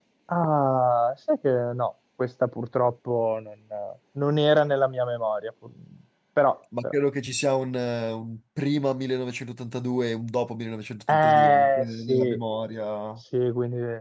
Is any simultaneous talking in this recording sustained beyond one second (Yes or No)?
Yes